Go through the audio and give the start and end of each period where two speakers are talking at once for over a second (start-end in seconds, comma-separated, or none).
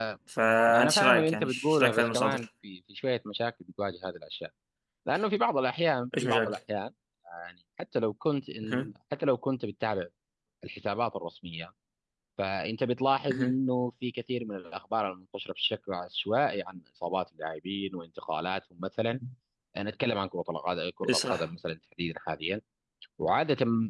0.7-2.4